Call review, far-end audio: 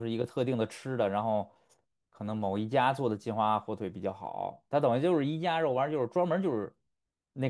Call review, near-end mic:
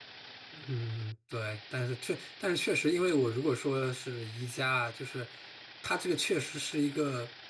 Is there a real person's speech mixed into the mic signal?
Yes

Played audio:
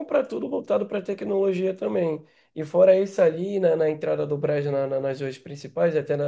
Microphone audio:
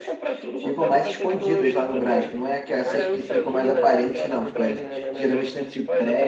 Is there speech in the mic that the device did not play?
Yes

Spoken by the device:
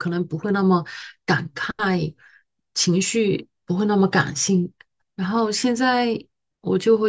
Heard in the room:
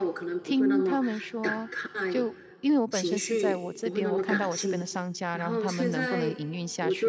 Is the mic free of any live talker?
No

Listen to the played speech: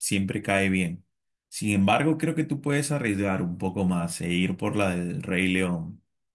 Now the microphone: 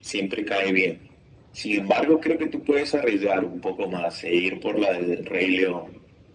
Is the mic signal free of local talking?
Yes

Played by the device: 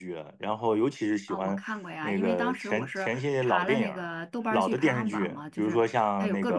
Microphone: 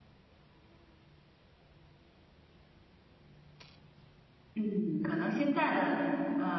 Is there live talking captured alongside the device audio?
Yes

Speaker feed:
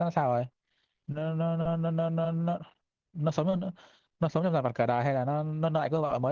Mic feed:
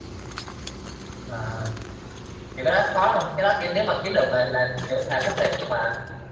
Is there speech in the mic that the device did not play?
Yes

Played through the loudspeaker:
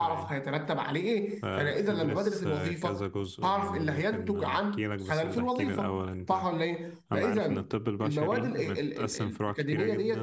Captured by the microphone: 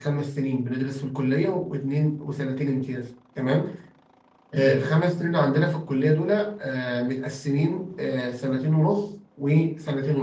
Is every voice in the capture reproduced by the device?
No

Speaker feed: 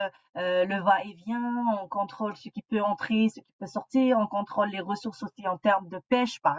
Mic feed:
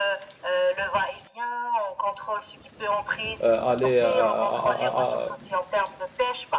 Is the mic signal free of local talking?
No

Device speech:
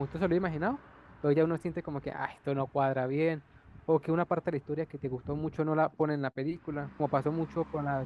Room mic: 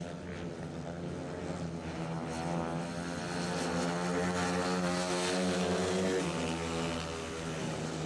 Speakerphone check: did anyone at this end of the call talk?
No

